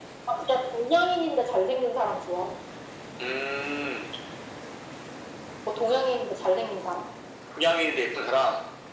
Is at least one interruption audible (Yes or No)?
No